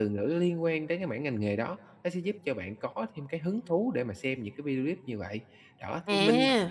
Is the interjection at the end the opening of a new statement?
No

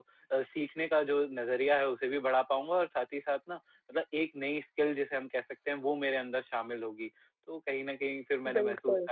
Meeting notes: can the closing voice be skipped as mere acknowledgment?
Yes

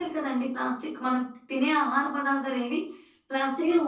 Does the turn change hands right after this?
Yes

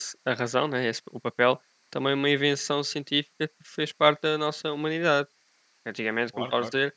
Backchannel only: Yes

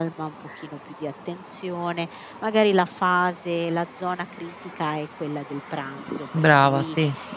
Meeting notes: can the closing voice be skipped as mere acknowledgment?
Yes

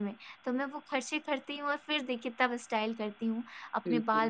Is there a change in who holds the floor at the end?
No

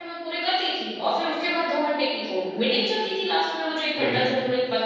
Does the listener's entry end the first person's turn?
No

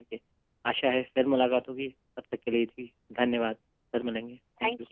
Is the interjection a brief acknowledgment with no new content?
No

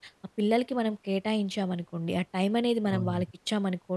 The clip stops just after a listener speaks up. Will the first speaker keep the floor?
Yes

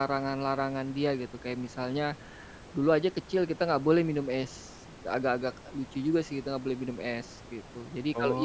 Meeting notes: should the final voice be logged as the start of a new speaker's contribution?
Yes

